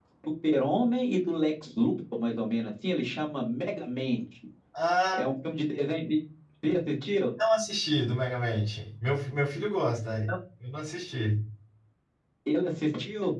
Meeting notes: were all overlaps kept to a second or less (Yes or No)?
Yes